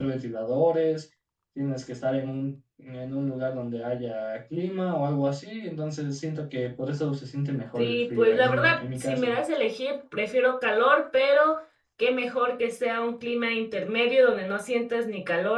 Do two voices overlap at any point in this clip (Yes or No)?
Yes